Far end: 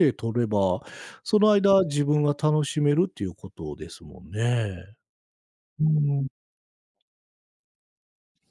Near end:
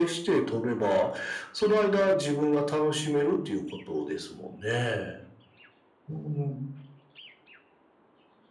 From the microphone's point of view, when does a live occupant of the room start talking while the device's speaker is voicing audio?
none

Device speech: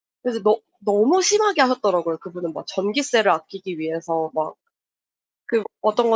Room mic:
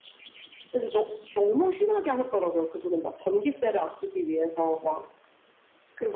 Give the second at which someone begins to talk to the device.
none

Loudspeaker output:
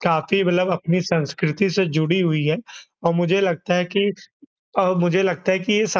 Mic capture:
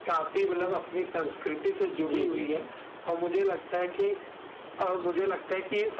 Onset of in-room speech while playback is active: 2.0 s

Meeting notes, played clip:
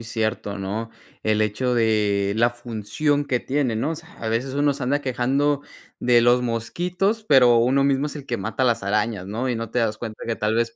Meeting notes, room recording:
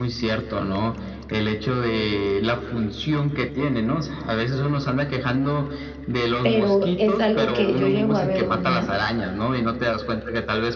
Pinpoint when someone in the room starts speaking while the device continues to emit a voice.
6.4 s

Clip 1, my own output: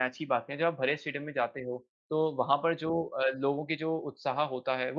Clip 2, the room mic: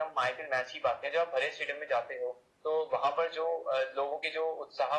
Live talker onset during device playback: none

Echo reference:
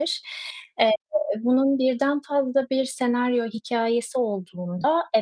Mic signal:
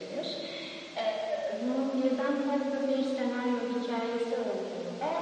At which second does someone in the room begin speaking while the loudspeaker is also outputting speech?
none

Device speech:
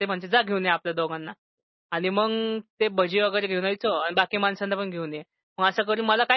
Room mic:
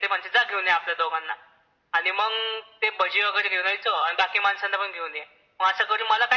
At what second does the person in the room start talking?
none

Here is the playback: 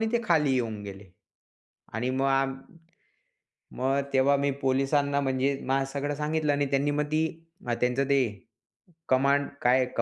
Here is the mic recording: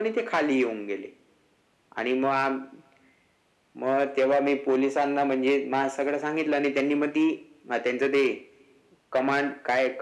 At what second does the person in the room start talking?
none

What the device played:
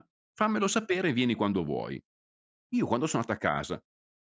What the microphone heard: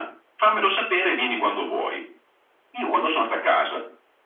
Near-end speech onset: none

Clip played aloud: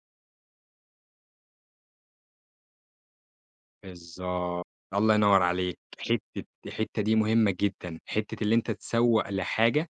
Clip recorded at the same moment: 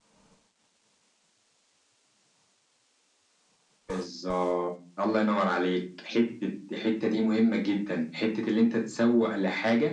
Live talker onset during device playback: none

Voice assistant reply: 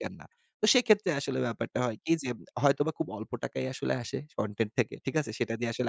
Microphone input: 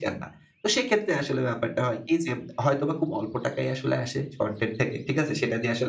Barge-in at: none

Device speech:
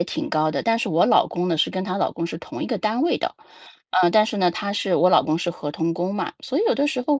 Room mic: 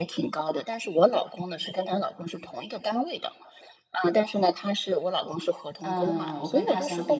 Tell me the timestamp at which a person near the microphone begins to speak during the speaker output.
5.8 s

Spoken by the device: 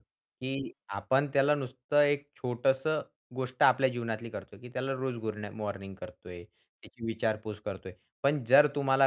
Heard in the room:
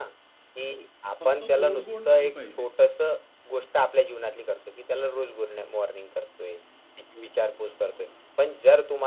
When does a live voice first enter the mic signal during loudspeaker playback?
1.2 s

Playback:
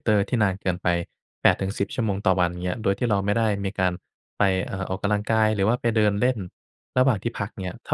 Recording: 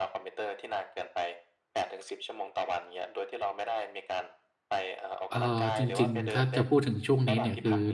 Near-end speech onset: 5.3 s

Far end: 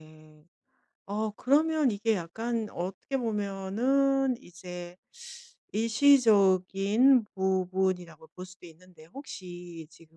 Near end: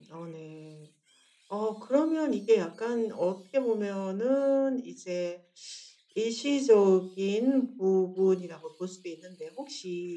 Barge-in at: none

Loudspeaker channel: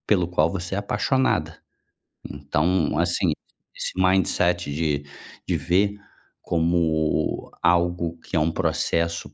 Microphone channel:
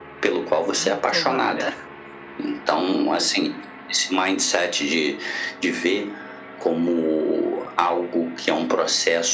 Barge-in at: 0.7 s

